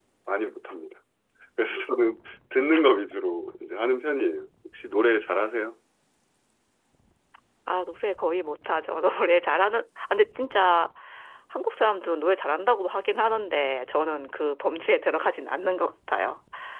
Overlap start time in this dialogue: none

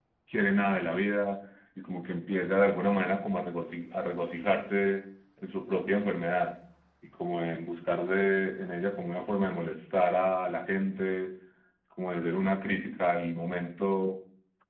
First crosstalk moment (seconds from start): none

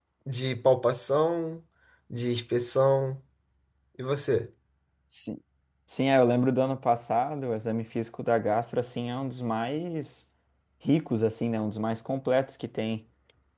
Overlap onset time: none

